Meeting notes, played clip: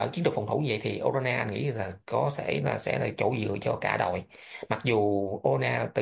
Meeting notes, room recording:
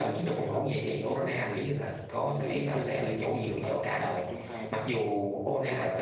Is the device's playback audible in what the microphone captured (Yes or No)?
Yes